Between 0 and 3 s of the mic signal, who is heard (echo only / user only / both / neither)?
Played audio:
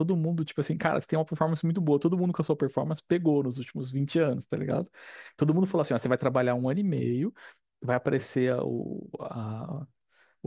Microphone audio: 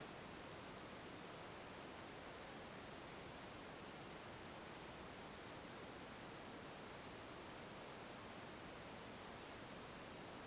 neither